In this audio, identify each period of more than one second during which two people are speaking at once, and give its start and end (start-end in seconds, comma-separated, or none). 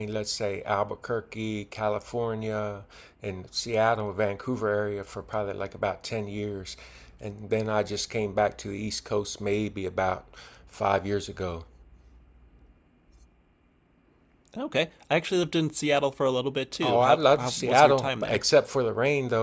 16.8-18.4